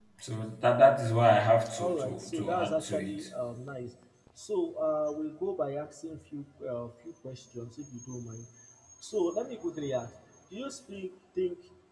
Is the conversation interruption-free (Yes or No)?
No